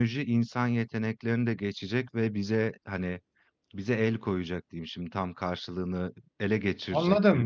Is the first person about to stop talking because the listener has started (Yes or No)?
Yes